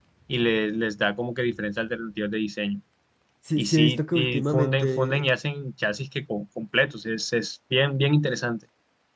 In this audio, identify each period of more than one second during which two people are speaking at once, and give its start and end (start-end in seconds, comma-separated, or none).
3.6-5.3